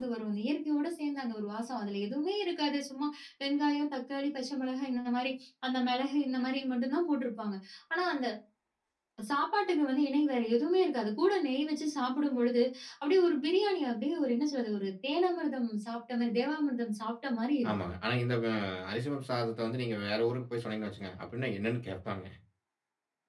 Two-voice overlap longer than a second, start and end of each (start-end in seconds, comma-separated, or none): none